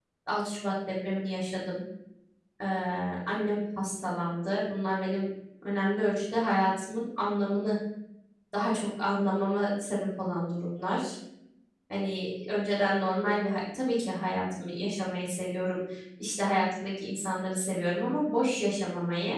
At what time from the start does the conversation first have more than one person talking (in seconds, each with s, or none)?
none